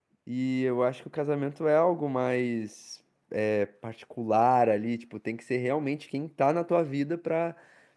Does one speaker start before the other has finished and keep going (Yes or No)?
No